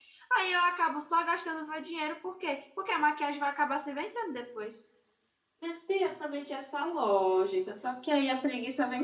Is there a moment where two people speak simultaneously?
No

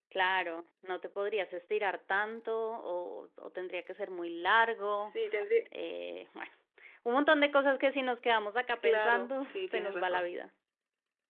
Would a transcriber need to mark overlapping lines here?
Yes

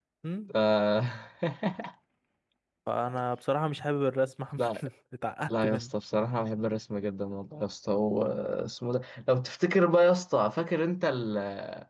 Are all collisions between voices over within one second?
Yes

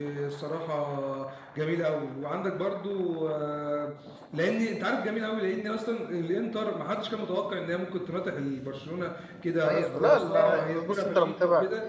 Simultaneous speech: Yes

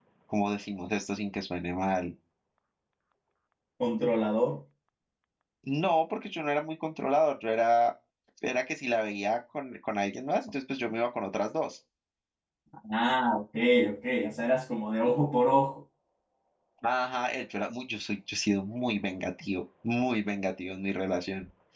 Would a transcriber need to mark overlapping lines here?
No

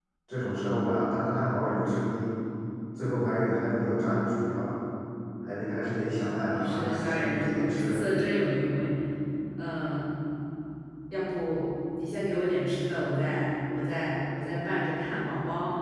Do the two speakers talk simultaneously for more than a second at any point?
Yes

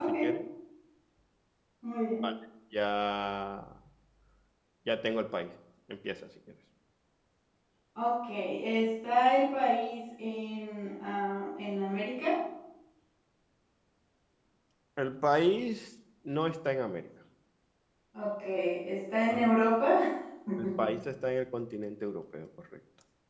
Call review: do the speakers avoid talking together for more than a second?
Yes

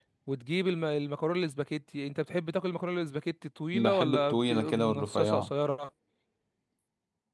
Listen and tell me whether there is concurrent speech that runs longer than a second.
Yes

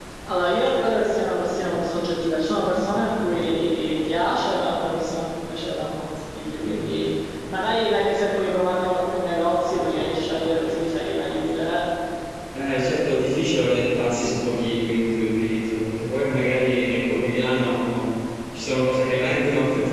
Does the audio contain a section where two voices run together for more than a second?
No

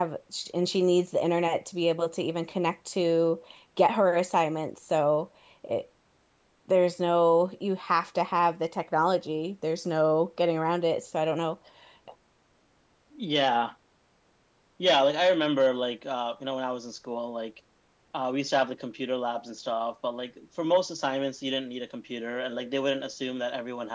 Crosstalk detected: No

